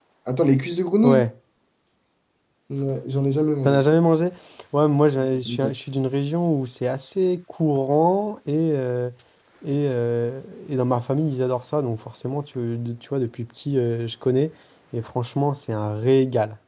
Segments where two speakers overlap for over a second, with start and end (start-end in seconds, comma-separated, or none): none